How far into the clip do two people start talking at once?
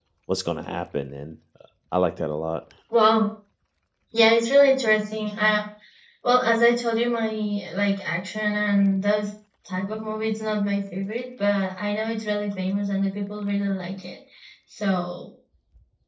none

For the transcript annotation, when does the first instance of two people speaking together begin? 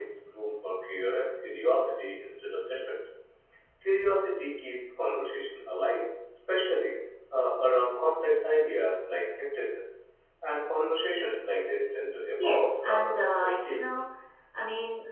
12.4 s

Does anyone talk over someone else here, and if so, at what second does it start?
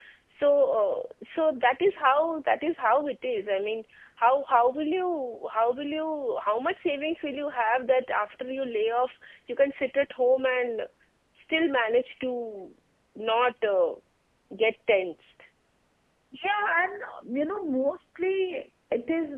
none

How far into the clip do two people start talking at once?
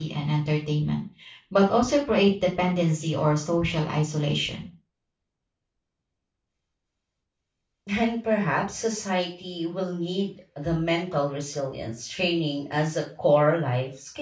none

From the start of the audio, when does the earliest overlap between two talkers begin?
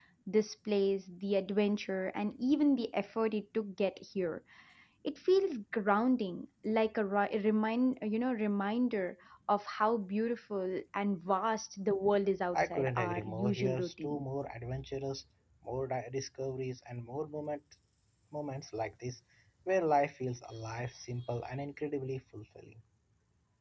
12.5 s

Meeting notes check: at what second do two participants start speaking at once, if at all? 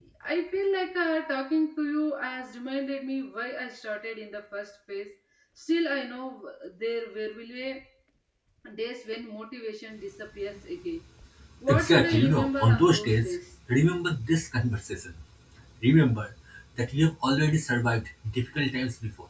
11.7 s

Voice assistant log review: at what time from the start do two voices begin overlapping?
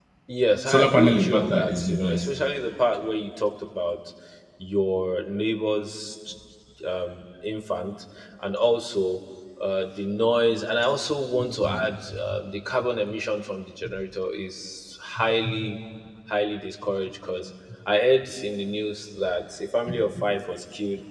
0.7 s

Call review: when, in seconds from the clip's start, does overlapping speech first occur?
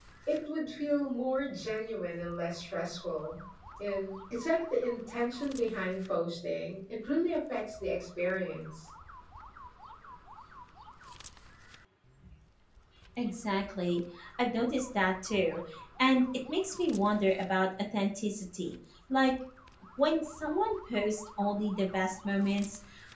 none

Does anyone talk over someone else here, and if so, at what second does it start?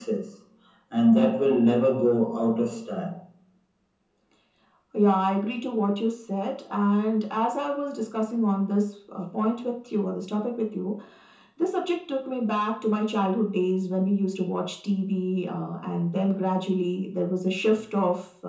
none

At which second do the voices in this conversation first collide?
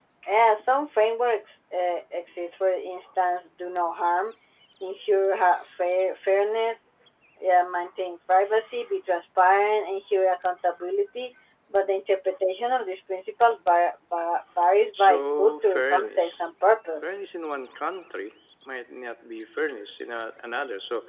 14.9 s

